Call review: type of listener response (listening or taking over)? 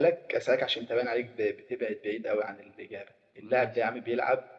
listening